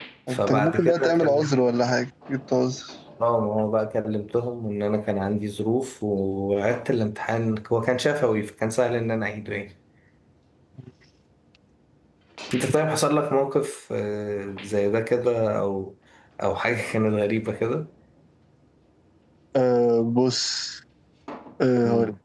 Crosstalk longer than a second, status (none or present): present